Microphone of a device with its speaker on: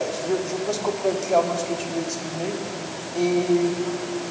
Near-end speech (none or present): none